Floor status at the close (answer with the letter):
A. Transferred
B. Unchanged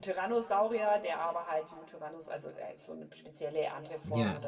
B